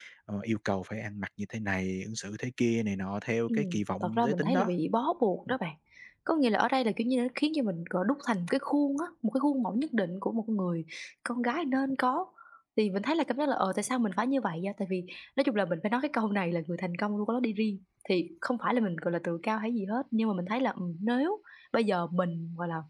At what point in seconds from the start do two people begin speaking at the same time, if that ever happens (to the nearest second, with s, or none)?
3 s